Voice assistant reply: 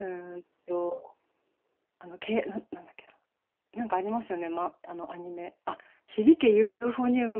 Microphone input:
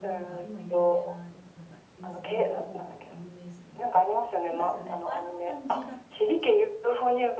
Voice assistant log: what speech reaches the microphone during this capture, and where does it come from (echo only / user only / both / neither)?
both